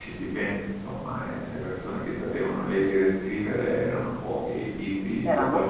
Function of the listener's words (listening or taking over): listening